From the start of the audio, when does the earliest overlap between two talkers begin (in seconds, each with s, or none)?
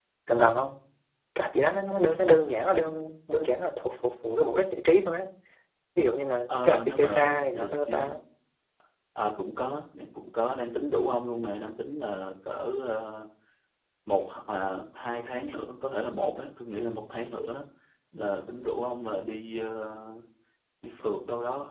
6.5 s